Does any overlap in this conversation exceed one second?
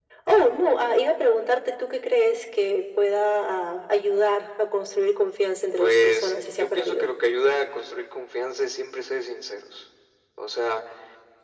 Yes, from 5.8 s

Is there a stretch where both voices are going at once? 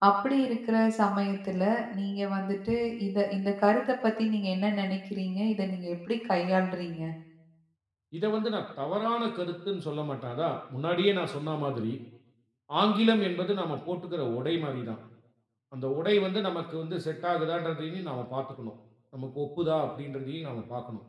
No

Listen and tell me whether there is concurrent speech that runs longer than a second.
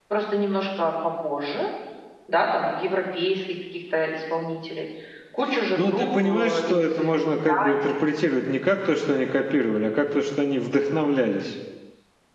Yes, from 5.8 s

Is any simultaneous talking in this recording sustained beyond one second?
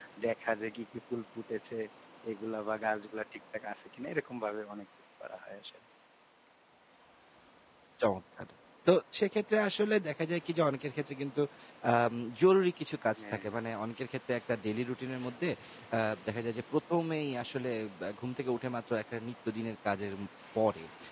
No

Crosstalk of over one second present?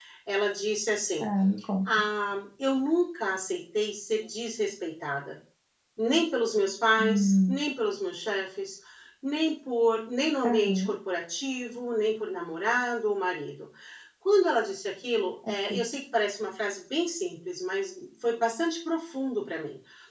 No

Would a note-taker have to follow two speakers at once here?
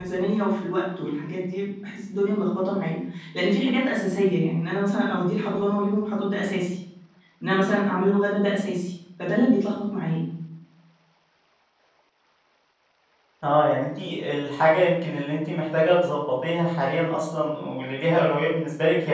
No

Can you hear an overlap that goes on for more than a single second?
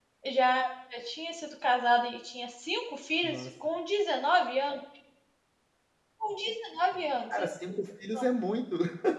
No

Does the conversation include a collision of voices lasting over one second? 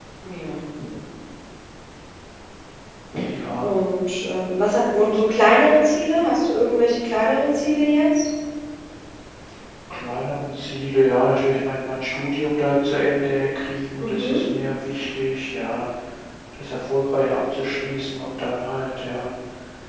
No

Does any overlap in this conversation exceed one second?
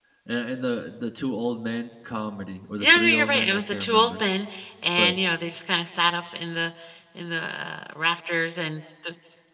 Yes, from 2.8 s

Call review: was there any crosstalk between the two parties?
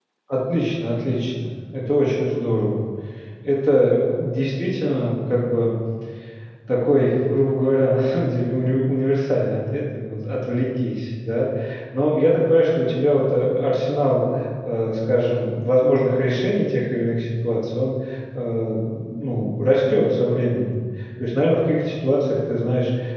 No

